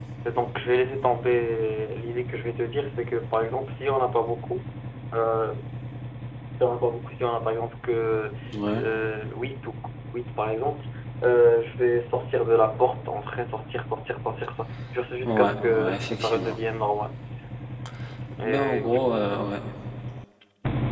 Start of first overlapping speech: 15 s

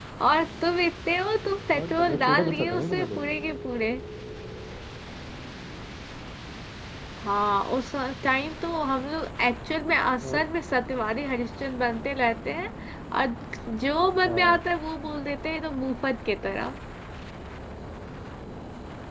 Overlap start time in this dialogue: 2 s

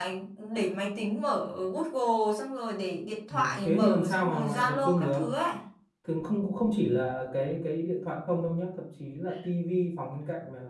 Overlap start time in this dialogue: 3 s

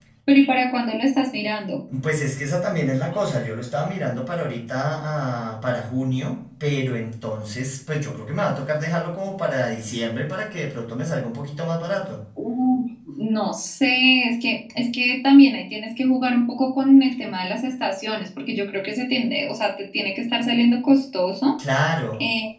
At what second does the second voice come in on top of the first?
none

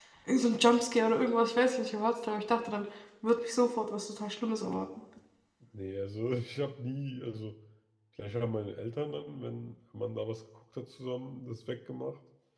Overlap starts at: none

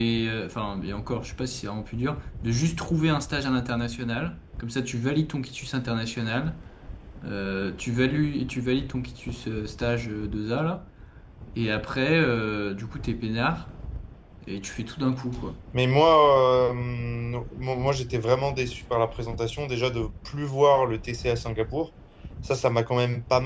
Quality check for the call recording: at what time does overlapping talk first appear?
none

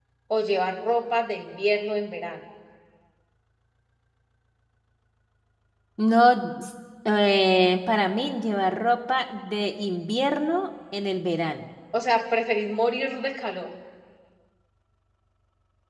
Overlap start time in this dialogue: none

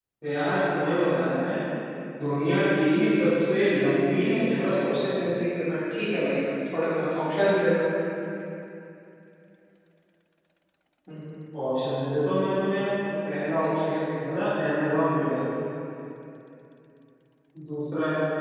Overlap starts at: 4 s

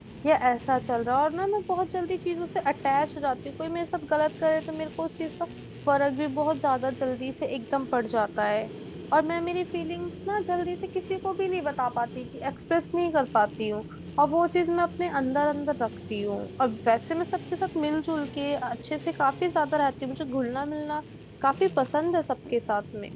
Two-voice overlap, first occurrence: none

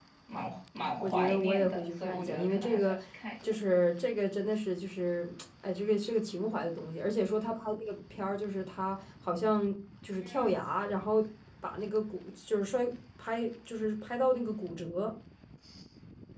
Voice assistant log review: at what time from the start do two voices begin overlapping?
1 s

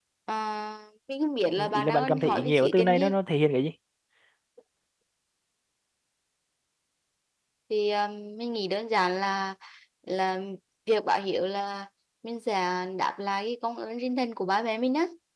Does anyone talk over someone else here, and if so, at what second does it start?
1 s

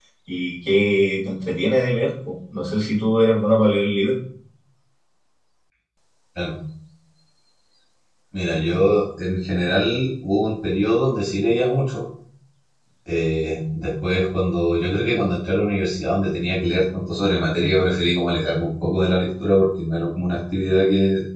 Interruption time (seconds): none

